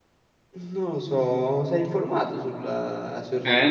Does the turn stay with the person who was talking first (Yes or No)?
No